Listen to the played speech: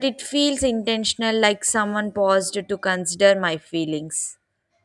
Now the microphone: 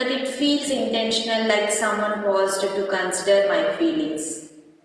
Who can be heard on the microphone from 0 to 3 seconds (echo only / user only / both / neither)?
echo only